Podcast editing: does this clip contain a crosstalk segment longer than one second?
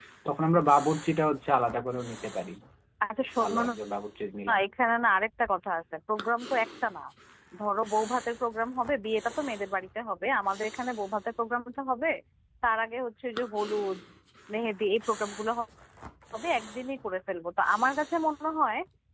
No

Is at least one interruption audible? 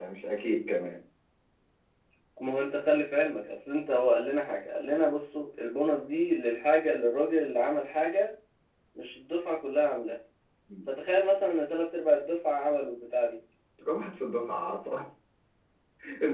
No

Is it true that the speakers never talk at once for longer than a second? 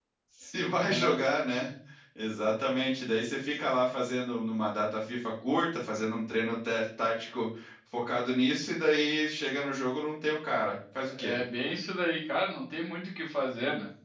Yes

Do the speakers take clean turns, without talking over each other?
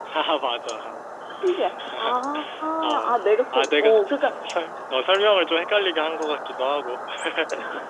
No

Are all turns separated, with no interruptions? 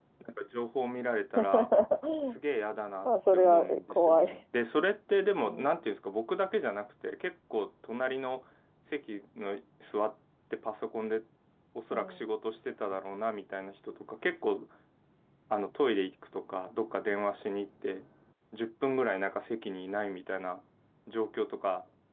No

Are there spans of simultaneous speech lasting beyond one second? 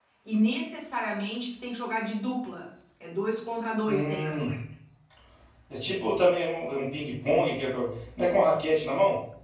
No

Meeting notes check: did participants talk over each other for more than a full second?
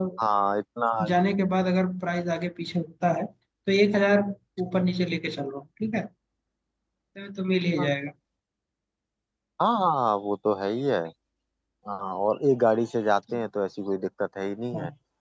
No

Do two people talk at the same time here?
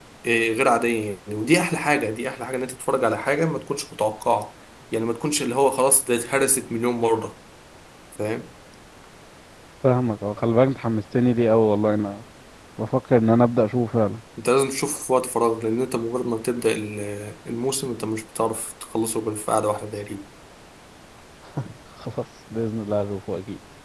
No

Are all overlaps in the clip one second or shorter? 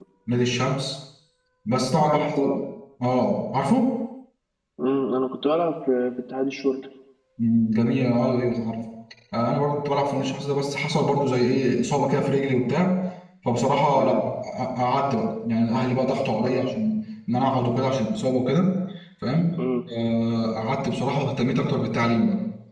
Yes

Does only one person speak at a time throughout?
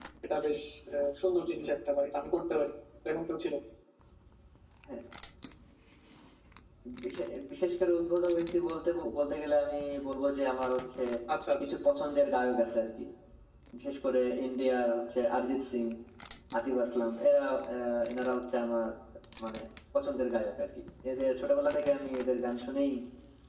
Yes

